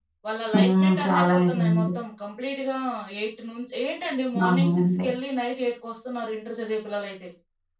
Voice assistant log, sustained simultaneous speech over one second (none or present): present